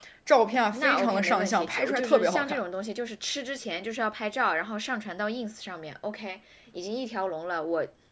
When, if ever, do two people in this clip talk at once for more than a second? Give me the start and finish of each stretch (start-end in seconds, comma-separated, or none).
0.7-2.6